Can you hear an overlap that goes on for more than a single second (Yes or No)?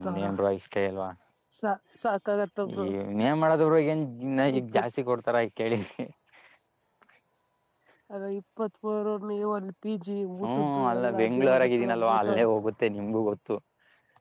Yes